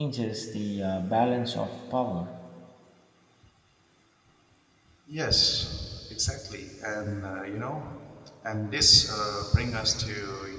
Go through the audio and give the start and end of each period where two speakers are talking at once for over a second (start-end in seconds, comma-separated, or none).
none